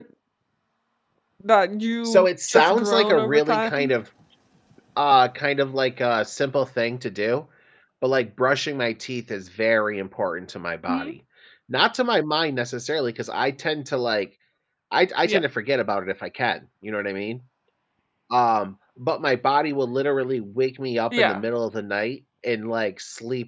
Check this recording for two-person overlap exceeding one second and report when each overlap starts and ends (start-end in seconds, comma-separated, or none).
2.0-3.9